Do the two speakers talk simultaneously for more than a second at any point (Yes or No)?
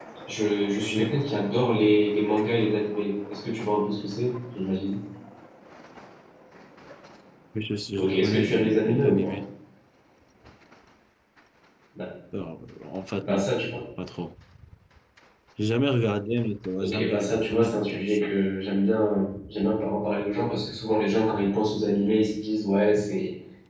Yes